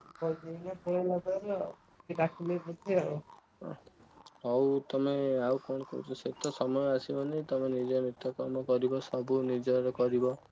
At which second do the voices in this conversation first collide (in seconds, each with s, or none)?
none